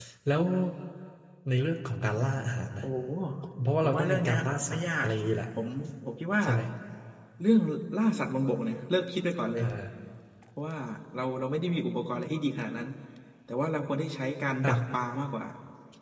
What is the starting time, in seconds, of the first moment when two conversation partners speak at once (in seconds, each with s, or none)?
3.8 s